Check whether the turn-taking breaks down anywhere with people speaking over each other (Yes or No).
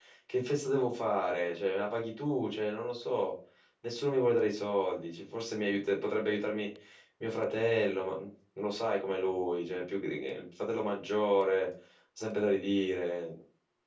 No